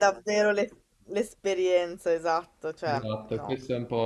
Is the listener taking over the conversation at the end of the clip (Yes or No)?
Yes